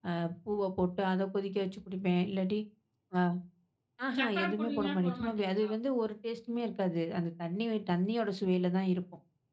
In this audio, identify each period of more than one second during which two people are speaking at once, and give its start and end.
4.2-5.7

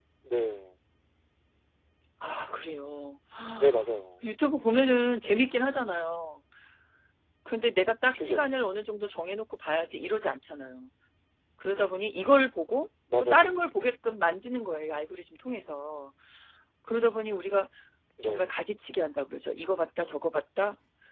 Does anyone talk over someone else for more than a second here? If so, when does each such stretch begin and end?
none

